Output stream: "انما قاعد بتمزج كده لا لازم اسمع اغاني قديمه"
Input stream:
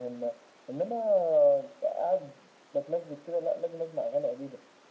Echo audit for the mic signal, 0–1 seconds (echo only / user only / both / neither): echo only